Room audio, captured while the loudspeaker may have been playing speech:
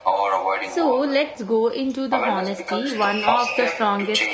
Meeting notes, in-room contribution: present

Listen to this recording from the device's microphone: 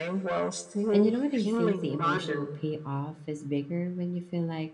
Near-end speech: present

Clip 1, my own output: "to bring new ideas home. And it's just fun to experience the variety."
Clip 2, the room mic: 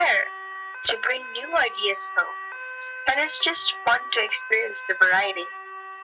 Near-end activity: none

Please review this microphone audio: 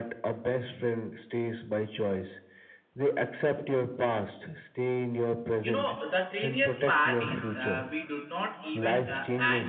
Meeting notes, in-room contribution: present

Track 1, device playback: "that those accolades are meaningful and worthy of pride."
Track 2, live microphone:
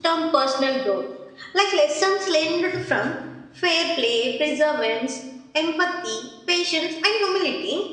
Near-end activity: present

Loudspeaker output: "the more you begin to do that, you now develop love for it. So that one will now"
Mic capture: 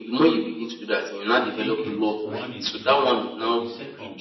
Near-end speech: present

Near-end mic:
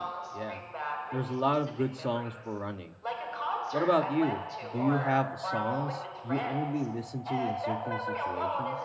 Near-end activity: present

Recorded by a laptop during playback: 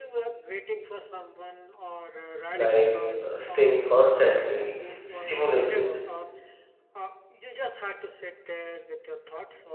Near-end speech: present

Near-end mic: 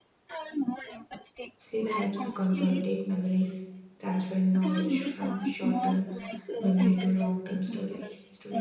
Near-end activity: present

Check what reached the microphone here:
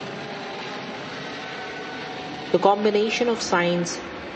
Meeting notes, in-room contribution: present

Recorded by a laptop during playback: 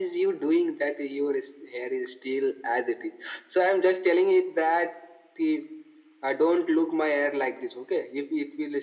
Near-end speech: none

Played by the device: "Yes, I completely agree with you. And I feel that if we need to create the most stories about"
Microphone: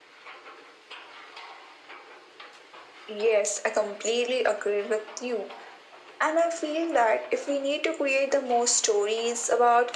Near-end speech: none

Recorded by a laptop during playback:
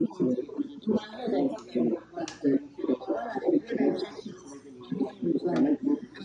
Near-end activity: none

